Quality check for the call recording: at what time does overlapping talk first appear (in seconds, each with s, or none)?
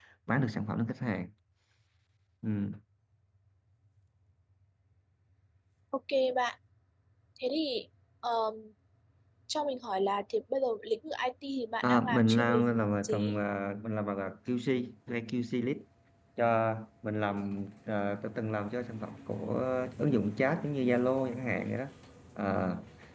11.8 s